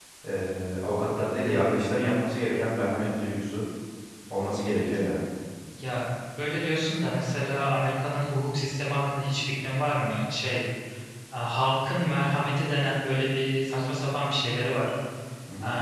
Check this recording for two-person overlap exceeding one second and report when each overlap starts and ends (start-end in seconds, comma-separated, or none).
none